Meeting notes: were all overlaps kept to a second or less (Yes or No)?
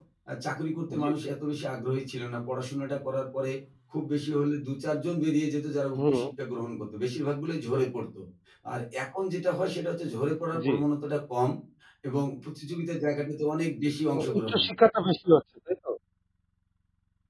Yes